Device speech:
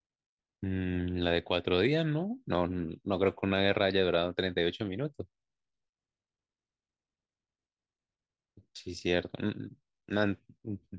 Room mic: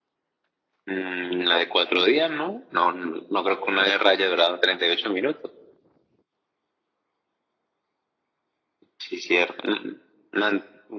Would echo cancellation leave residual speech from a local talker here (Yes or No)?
No